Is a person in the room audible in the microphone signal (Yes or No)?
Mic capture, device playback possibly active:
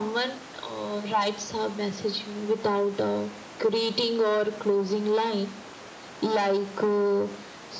No